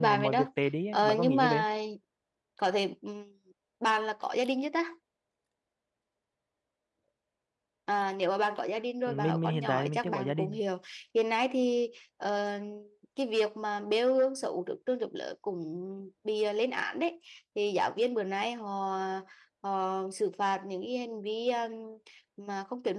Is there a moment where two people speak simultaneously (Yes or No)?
Yes